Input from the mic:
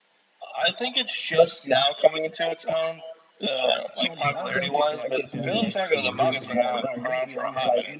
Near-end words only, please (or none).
Let's see. I'm just